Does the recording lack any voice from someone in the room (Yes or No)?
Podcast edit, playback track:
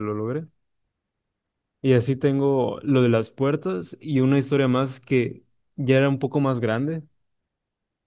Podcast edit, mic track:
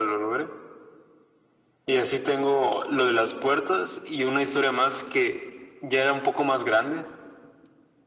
Yes